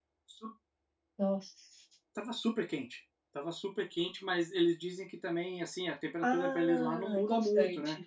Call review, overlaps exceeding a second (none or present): present